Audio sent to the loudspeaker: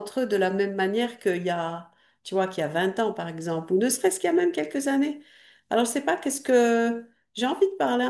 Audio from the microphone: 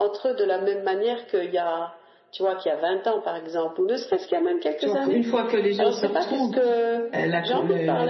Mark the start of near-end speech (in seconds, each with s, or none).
4.8 s